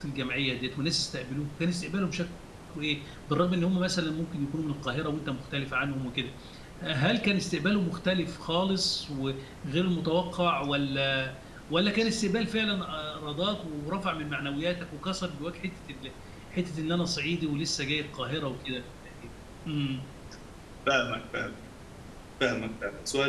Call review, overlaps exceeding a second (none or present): none